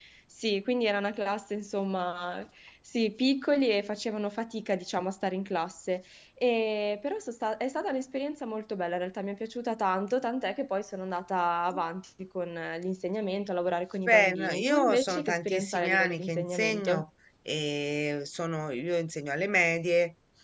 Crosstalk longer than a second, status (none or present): present